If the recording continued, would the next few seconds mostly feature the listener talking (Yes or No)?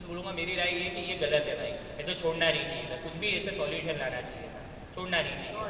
Yes